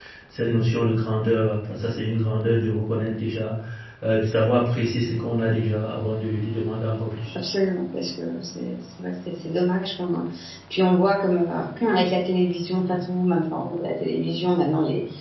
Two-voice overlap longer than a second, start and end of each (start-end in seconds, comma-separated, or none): none